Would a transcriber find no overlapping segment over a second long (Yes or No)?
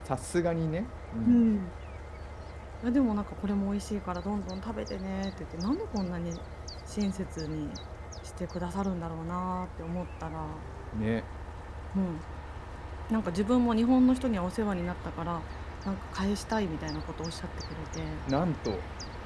Yes